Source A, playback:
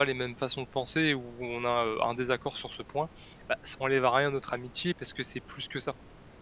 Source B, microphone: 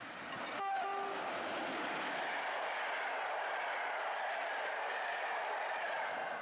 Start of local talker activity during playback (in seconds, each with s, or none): none